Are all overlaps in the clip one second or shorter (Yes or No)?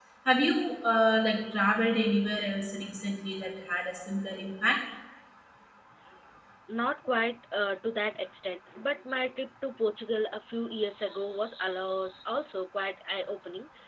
Yes